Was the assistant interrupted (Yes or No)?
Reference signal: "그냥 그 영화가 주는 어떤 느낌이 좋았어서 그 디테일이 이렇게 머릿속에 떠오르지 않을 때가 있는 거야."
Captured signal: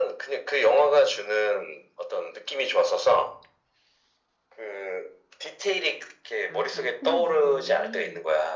Yes